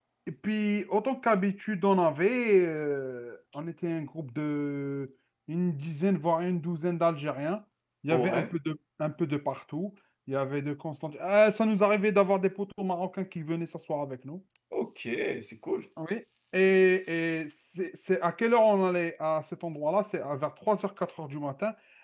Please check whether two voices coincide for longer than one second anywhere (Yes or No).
No